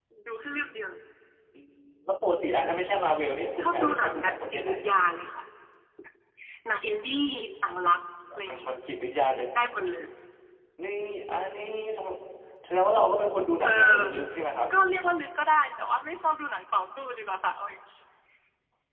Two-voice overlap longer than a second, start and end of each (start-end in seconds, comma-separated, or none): 3.6-4.9